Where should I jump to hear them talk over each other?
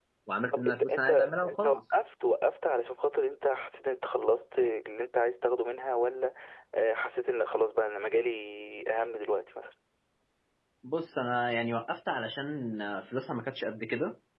0.5 s

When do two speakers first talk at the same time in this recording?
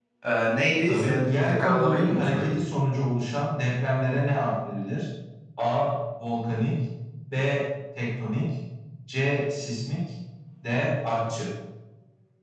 0.8 s

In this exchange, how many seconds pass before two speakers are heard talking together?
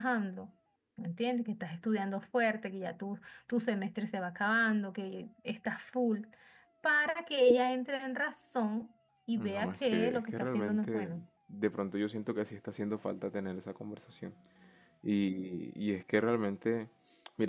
9.4 s

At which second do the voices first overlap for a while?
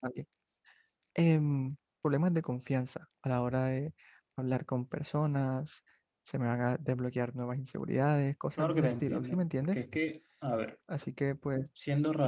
8.6 s

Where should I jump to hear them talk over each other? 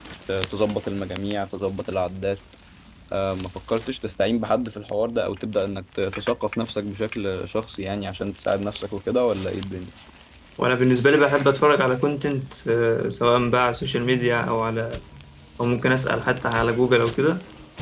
none

